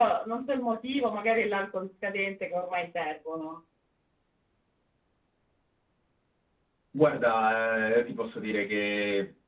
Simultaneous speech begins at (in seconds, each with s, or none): none